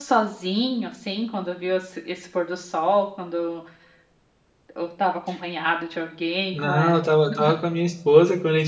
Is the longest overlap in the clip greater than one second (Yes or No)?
No